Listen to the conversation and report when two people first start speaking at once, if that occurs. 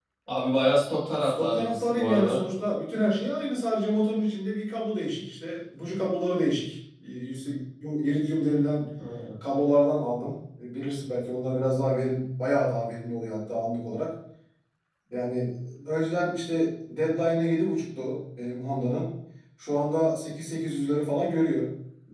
1.2 s

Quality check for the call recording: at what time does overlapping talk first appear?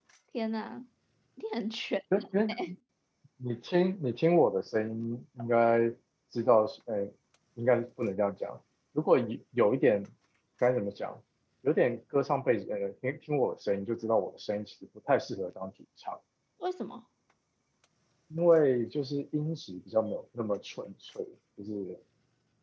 none

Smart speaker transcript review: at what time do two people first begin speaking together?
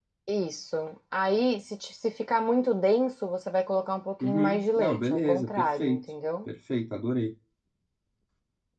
4.2 s

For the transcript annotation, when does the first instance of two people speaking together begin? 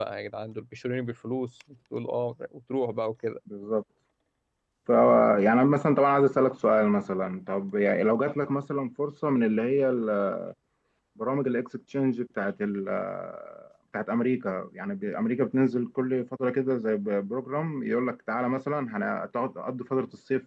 none

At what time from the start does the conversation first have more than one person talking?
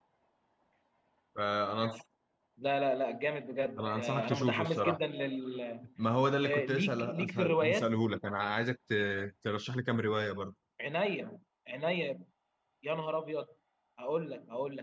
3.8 s

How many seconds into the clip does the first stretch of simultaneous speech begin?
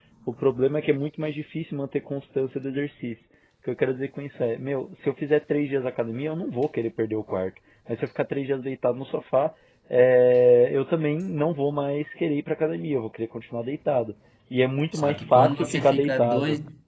14.9 s

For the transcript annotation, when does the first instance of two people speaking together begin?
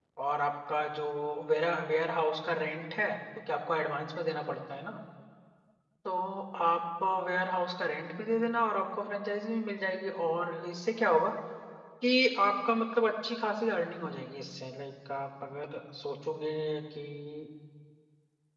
none

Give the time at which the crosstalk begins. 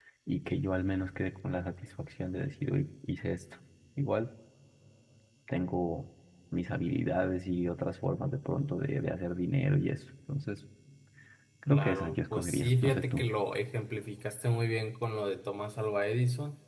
11.7 s

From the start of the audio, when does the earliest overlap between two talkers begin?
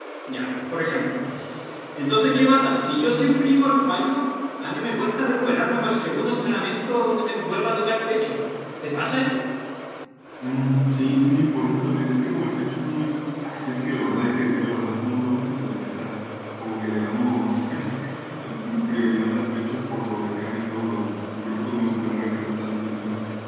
none

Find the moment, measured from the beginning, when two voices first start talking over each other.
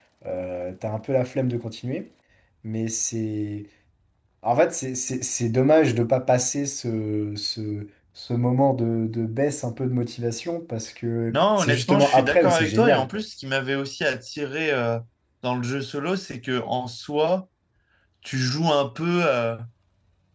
11.3 s

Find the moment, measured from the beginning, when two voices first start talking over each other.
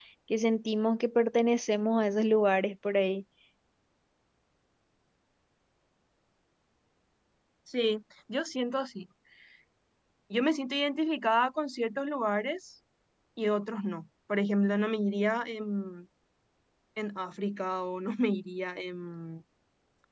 none

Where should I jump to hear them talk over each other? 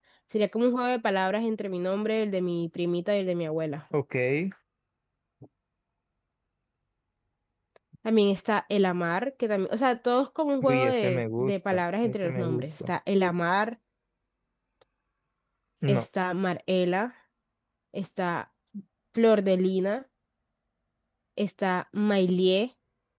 10.6 s

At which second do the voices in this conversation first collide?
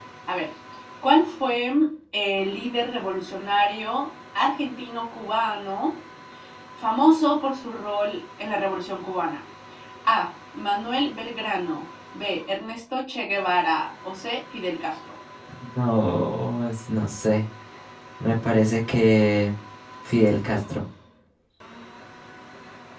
none

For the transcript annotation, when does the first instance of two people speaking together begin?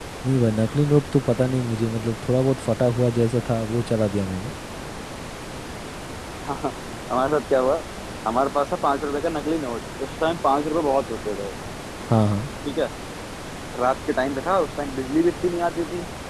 none

